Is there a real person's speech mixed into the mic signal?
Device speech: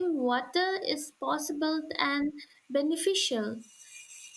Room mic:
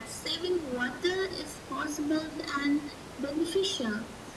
No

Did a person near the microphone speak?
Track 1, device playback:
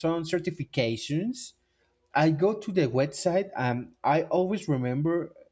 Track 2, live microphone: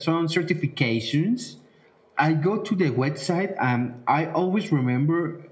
No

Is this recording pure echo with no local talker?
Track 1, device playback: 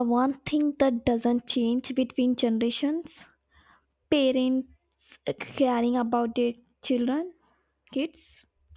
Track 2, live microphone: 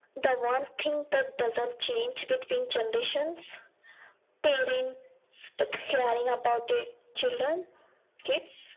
Yes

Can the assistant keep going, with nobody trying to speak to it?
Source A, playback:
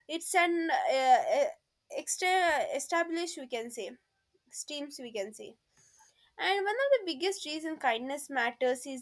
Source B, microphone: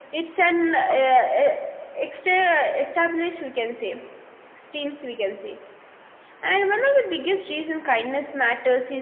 No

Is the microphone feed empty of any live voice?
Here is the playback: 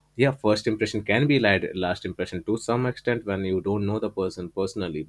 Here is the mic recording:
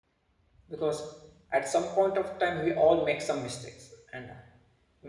No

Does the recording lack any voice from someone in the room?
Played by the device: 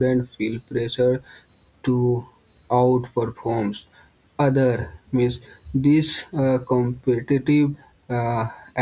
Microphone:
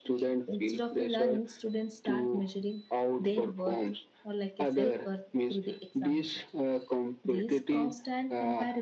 No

